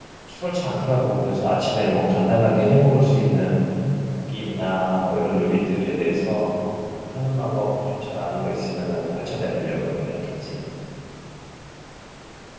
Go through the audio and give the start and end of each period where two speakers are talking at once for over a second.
none

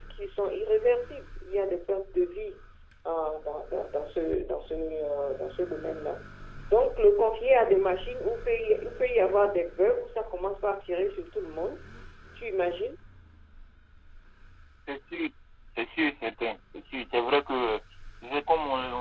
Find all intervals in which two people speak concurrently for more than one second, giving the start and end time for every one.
none

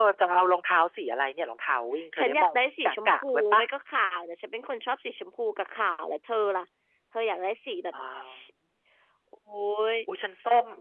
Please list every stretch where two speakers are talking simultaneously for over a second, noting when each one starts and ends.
2.2-3.6

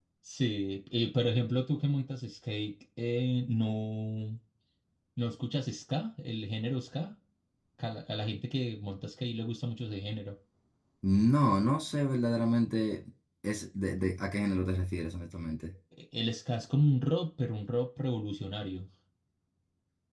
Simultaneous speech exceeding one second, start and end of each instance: none

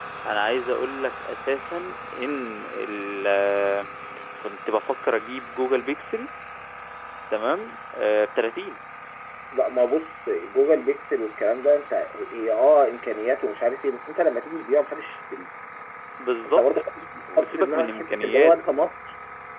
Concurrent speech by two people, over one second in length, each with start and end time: 17.4-18.6

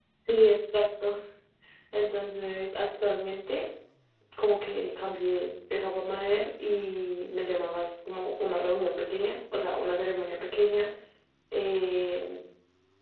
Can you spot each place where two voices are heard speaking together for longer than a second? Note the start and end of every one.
none

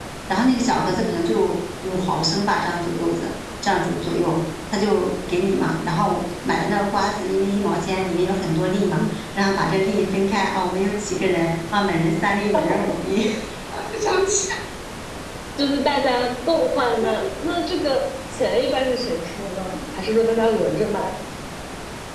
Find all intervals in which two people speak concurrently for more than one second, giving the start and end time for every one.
none

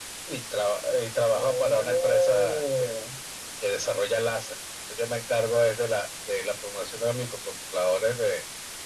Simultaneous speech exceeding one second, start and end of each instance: 1.3-2.9

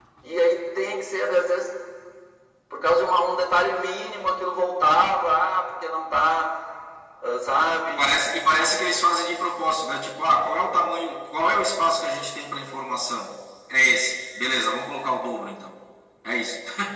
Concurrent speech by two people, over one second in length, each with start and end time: none

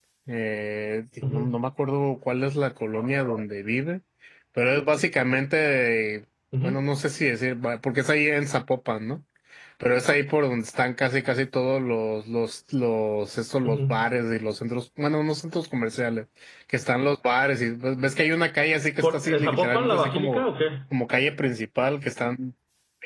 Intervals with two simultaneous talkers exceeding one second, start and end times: 19.0-20.4

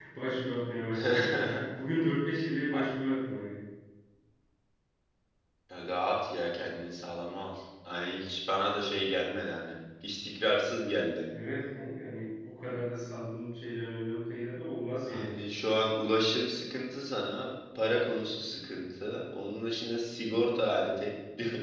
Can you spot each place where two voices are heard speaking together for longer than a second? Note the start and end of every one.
none

